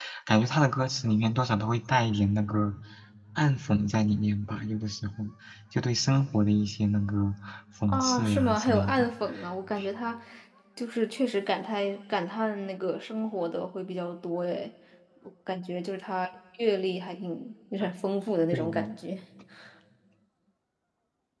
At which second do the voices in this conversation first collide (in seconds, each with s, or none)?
7.9 s